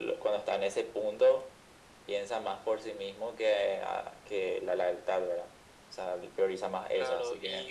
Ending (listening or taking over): taking over